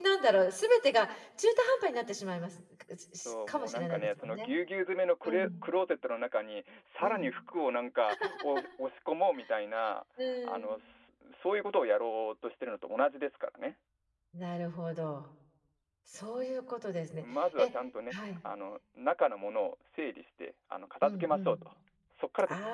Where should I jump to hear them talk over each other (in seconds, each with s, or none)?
3.2 s